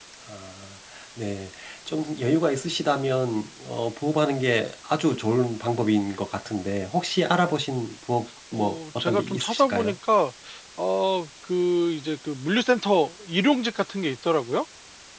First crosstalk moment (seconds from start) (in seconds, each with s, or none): 8.5 s